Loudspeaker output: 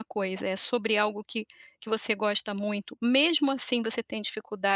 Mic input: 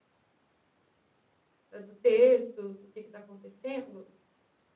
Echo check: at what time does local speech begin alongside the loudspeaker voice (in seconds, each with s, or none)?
1.7 s